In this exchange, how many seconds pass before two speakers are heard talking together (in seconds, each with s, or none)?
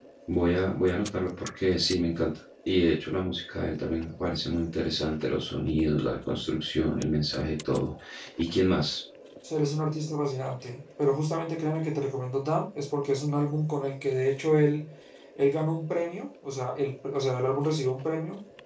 none